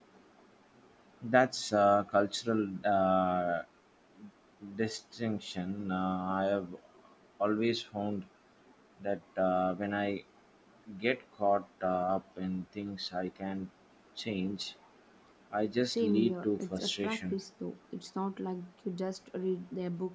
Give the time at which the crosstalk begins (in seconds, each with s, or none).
15.8 s